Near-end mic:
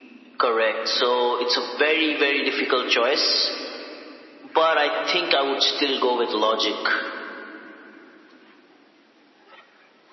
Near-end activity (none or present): none